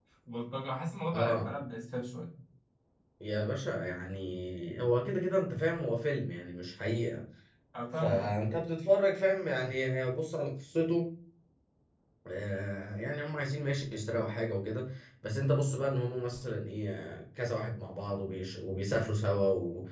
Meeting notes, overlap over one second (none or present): none